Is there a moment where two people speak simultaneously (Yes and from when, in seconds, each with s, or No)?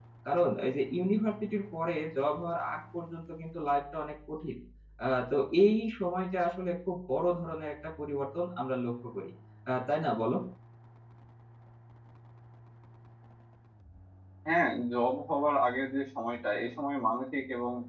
No